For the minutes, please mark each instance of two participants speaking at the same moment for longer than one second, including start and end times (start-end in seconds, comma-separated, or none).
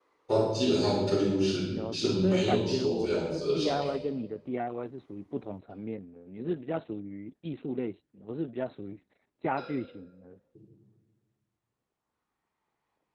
1.7-3.9